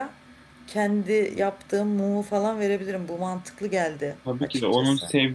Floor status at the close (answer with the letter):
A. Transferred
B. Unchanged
A